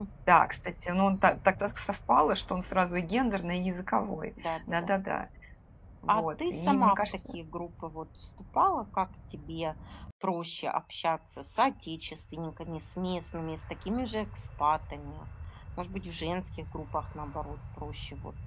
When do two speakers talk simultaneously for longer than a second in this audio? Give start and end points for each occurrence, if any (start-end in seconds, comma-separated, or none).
6.1-7.3